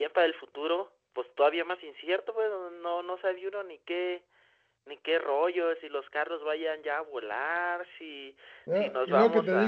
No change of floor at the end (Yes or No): No